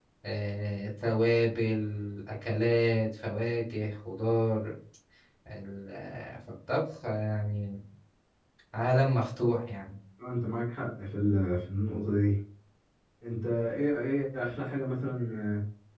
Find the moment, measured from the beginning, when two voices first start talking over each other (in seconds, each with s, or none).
none